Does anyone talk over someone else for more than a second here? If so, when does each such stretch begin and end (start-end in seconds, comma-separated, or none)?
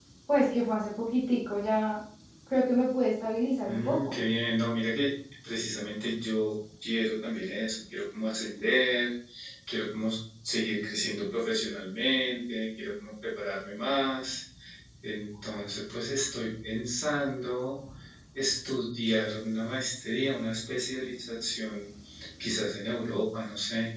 none